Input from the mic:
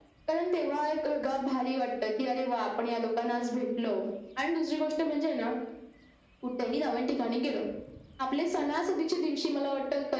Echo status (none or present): present